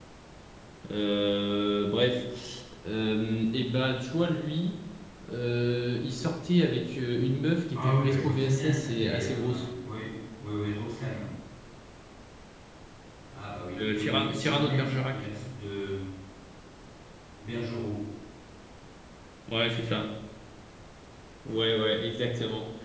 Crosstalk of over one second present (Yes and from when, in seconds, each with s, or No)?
Yes, from 7.8 s